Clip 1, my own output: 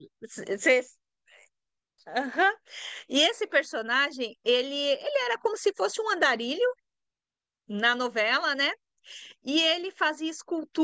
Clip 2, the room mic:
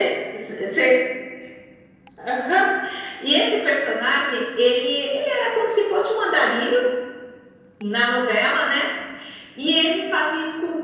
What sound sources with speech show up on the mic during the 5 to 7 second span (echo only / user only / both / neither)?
echo only